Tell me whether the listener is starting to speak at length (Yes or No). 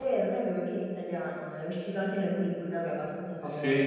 Yes